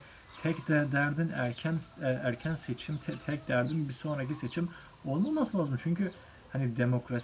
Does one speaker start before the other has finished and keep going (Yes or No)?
No